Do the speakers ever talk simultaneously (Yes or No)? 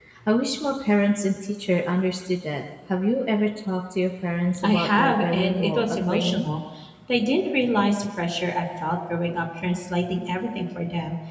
Yes